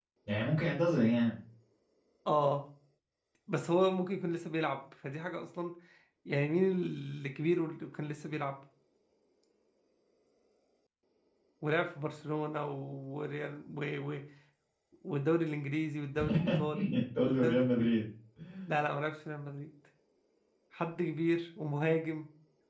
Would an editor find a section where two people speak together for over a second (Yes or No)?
Yes